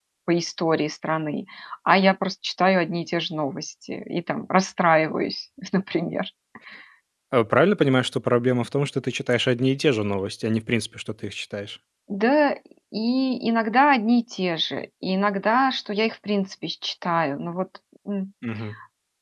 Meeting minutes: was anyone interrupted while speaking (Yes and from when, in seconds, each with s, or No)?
No